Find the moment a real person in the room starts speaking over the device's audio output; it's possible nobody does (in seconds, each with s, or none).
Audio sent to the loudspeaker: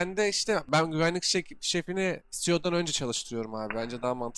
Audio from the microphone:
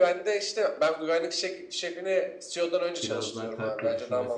3.0 s